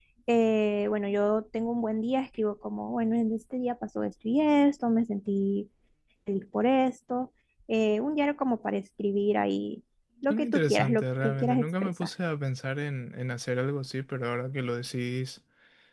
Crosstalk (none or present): present